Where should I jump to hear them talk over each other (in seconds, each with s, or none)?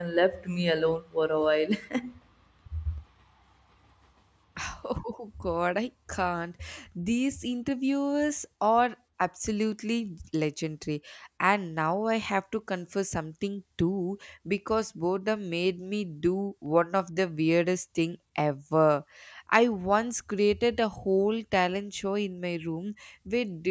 none